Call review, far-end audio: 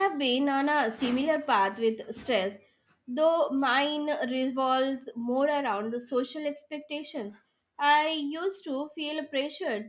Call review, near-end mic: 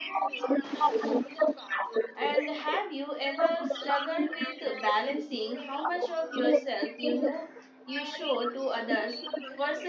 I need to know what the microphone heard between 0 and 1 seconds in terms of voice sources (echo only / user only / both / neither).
echo only